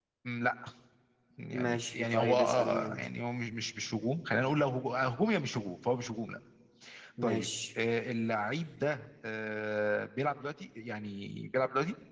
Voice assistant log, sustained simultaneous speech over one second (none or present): present